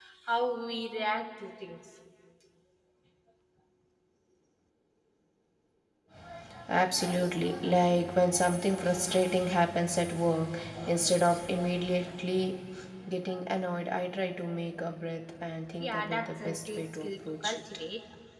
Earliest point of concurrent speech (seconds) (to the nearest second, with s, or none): 16 s